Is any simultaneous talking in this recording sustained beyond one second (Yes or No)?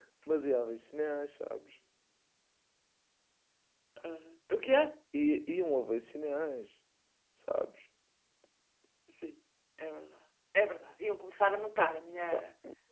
No